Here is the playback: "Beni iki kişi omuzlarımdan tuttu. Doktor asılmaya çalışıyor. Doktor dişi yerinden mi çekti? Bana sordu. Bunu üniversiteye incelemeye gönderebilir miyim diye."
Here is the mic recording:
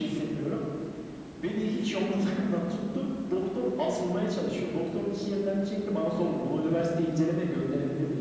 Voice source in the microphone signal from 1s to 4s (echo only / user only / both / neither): echo only